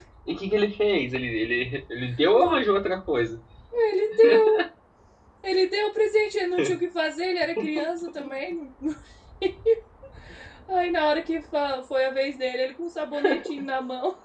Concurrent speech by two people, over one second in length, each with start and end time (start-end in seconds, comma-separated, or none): none